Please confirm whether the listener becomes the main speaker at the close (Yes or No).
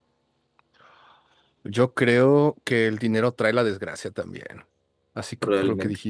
No